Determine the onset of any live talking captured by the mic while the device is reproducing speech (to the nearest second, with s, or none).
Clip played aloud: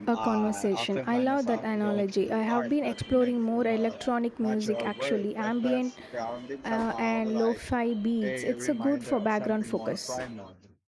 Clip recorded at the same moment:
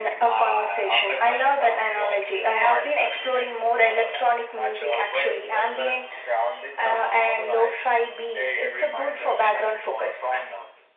none